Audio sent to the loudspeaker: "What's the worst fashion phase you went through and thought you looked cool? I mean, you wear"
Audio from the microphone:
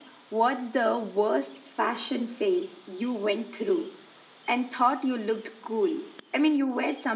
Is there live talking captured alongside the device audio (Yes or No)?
No